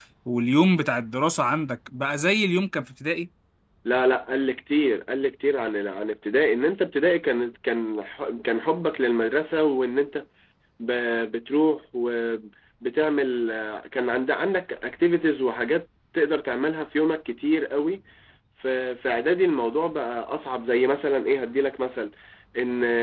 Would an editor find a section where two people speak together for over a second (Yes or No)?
No